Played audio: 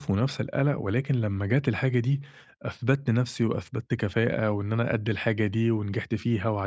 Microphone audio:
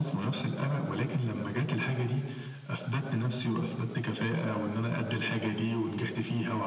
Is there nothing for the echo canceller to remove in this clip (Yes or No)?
No